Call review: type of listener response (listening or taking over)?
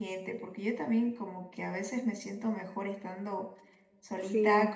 listening